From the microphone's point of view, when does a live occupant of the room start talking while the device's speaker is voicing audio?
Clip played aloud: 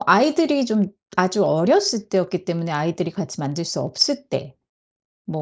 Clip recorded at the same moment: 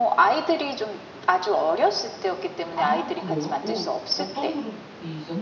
2.7 s

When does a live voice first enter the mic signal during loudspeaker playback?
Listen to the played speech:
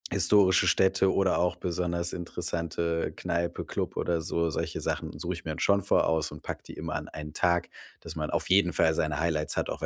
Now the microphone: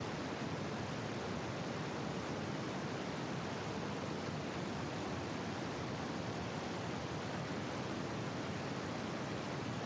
none

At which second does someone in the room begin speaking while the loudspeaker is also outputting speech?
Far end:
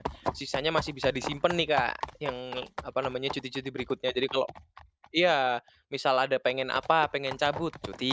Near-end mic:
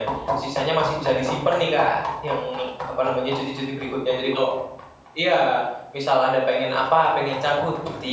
none

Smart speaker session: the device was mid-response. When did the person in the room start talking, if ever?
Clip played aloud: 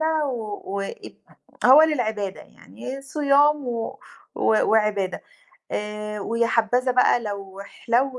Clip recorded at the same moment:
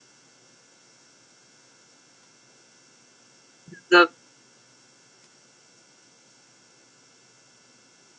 3.7 s

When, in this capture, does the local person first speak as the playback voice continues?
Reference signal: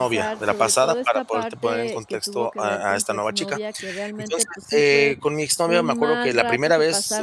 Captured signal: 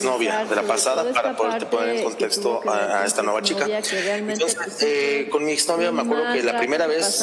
none

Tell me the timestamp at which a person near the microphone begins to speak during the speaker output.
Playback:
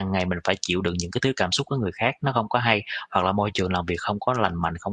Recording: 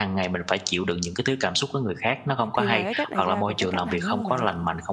2.5 s

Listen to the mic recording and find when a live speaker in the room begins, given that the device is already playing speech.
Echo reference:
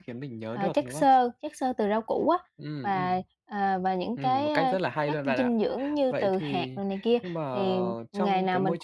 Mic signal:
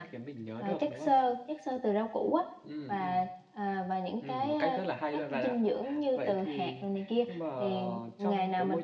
none

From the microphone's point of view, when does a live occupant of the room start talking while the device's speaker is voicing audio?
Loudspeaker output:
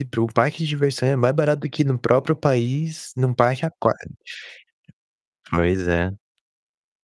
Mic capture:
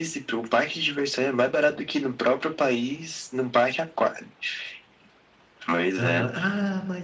6.0 s

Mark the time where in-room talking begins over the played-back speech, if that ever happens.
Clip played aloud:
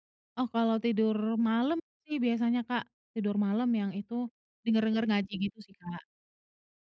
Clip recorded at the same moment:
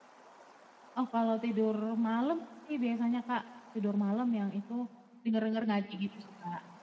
none

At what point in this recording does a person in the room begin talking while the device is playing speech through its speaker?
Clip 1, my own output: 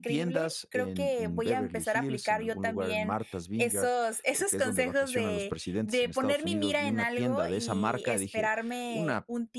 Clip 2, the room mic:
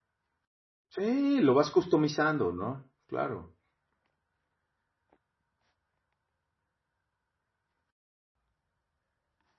0.9 s

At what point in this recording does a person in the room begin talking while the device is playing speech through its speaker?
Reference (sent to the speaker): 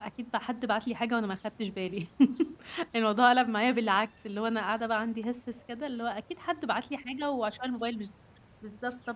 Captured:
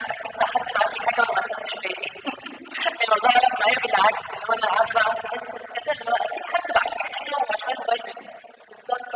none

